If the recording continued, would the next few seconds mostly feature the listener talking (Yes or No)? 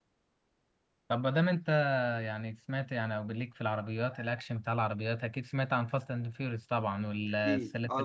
Yes